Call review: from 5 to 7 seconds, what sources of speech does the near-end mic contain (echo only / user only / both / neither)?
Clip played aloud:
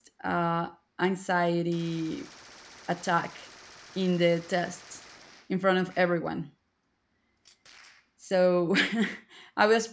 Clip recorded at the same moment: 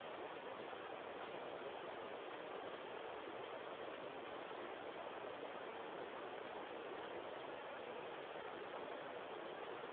neither